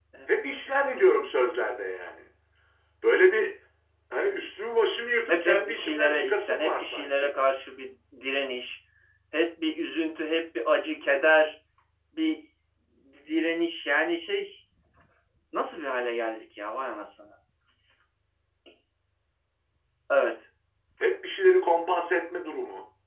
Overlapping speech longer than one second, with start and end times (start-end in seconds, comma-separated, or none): 5.3-7.3